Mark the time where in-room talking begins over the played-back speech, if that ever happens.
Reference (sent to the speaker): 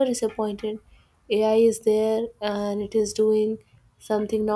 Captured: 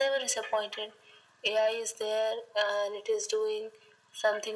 none

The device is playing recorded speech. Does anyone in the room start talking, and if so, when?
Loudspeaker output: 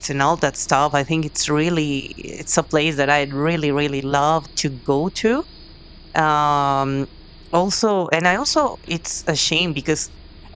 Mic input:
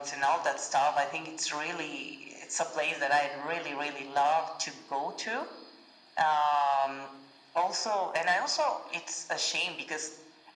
none

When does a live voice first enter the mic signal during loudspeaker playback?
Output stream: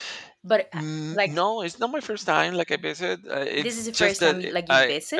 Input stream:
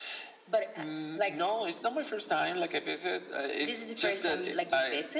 none

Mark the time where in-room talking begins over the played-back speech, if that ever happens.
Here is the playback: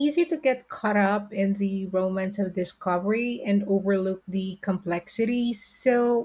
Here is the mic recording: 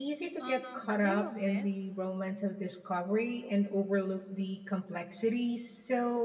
0.4 s

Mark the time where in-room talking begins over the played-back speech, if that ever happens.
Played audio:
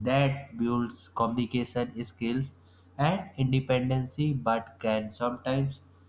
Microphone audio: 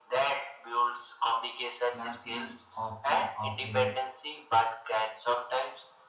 1.9 s

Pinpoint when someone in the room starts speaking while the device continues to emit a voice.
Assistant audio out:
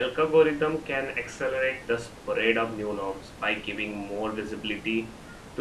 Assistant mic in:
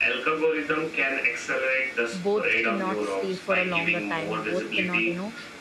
2.1 s

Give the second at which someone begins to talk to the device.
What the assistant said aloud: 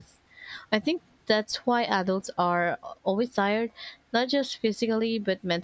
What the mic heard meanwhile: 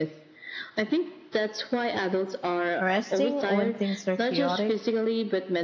2.8 s

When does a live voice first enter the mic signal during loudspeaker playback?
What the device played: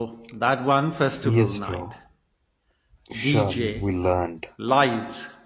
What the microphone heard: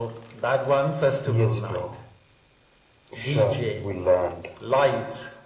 none

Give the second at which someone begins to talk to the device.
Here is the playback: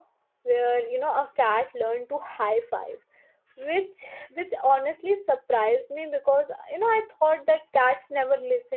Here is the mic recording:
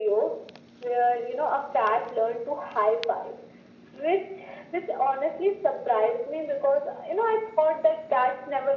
none

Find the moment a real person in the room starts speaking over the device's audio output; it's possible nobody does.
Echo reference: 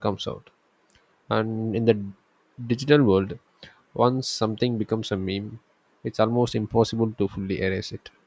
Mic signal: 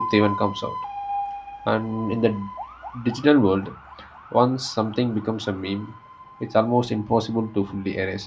none

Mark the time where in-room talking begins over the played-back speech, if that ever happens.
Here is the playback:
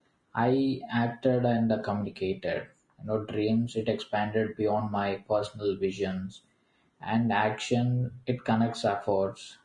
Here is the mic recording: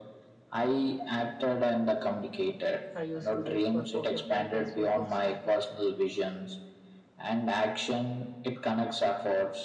2.9 s

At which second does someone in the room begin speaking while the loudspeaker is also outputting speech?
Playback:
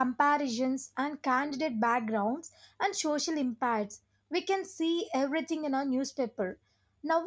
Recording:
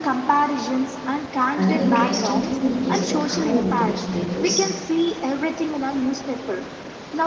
1.6 s

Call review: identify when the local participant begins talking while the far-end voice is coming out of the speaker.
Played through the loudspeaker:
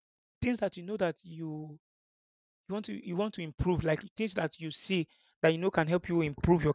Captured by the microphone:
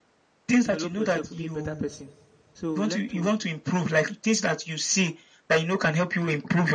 0.6 s

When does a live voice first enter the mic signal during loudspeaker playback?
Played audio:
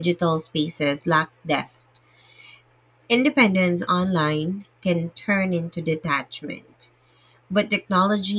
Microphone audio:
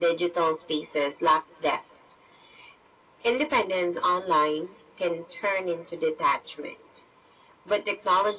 none

